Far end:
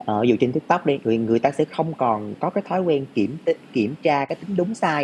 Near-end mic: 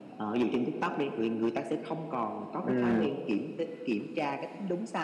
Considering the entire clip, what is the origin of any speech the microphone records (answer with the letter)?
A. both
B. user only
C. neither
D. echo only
A